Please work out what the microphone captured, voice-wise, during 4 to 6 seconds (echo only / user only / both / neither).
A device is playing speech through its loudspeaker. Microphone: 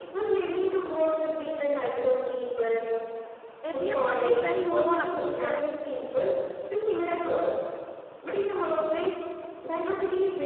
both